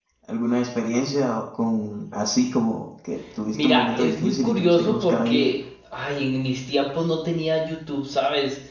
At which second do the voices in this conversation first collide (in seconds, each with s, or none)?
3.5 s